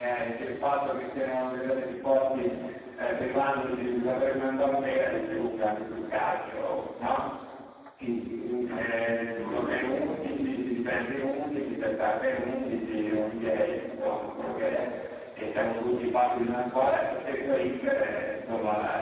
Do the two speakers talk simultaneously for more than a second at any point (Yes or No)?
Yes